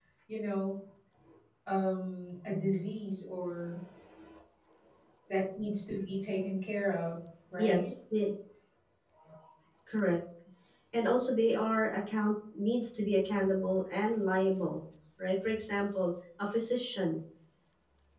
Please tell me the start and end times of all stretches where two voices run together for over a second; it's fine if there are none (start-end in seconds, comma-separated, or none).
none